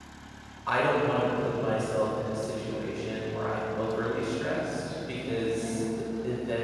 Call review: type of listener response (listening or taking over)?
listening